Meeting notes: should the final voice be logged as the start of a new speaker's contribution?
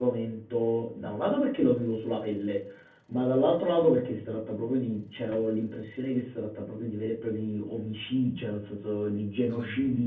No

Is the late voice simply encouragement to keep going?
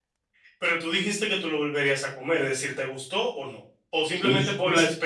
No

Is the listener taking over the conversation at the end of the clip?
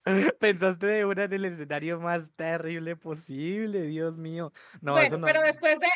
Yes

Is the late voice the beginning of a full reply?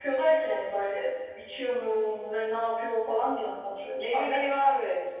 Yes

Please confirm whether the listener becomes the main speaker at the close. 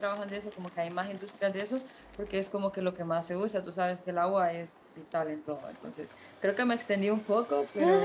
Yes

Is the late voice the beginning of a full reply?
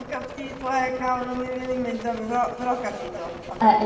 Yes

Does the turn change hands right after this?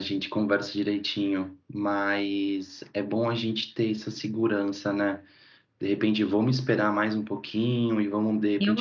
No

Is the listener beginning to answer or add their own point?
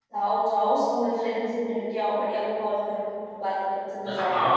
Yes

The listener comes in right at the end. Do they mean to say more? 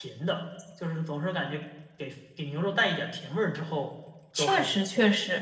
Yes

